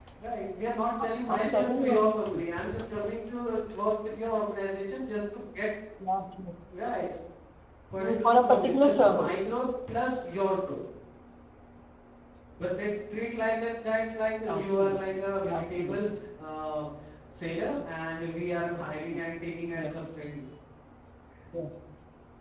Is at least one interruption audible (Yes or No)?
Yes